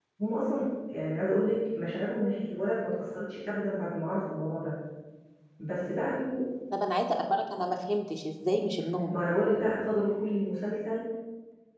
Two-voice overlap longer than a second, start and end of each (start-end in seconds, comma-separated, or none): none